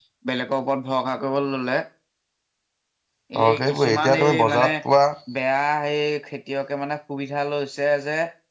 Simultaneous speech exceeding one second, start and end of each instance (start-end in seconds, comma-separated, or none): 3.4-4.7